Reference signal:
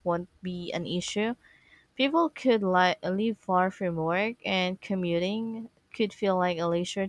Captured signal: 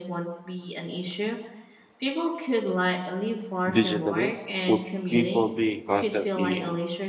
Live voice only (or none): digitally? Would people be constantly